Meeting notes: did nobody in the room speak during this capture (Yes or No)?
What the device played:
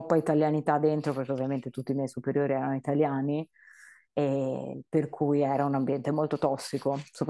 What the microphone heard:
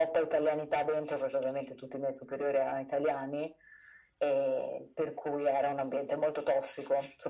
Yes